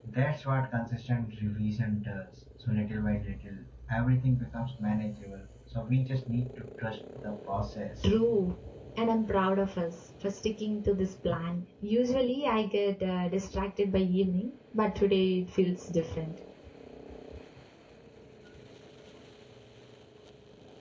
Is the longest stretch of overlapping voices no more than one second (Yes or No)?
Yes